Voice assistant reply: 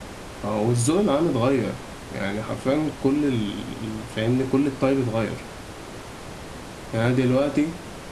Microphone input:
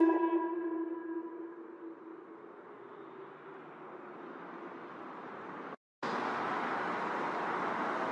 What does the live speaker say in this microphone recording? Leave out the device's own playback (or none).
none